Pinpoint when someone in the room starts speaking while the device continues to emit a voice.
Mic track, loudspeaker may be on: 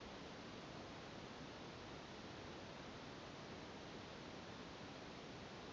none

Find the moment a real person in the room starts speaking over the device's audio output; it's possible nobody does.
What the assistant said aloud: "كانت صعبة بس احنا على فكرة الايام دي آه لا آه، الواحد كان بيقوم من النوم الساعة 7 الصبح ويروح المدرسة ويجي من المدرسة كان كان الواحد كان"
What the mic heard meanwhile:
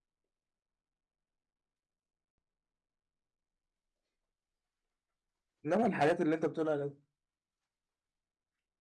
5.6 s

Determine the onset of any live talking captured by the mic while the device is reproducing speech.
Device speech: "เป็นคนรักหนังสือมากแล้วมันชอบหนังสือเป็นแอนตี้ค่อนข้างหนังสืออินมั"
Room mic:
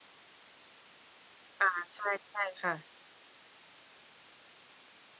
1.6 s

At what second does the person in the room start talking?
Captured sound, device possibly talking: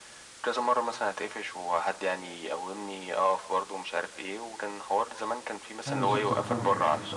5.9 s

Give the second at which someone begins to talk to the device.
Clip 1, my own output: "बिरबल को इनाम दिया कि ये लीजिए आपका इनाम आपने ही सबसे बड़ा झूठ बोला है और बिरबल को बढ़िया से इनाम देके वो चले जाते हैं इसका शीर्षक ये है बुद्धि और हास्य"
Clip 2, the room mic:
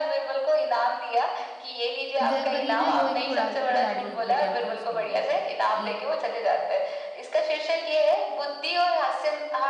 2.3 s

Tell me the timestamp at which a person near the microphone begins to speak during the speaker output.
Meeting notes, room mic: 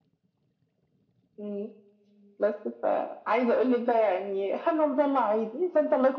none

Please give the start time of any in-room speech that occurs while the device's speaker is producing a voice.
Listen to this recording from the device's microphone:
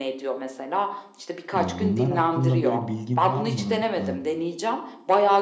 1.6 s

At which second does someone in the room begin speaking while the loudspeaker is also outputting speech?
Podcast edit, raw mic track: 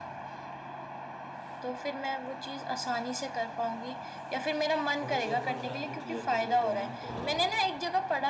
5.0 s

